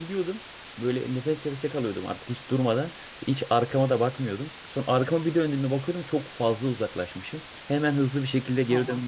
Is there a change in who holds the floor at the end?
No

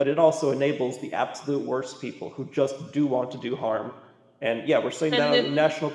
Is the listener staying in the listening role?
Yes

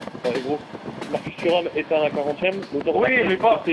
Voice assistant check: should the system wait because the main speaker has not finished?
No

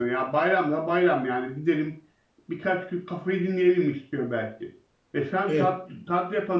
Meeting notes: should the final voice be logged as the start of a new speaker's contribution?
No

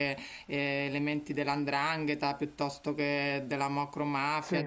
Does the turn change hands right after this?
No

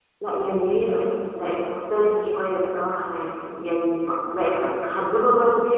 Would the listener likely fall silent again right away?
Yes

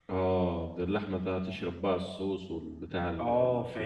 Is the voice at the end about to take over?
Yes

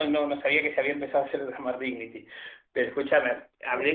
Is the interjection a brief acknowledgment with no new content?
No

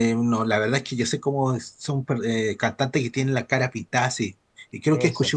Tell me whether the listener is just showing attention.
Yes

